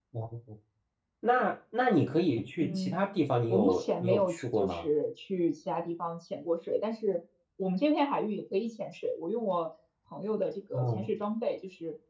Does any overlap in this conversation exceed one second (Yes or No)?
Yes